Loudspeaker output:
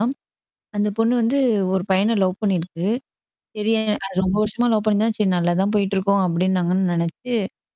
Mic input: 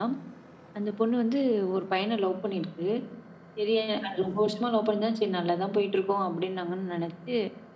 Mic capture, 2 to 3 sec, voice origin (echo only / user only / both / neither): echo only